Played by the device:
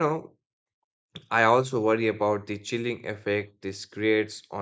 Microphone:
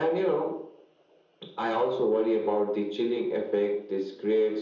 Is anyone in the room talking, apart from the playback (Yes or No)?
No